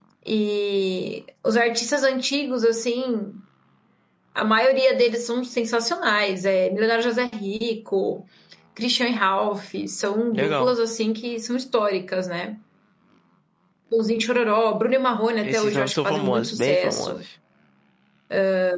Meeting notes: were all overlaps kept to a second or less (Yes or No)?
No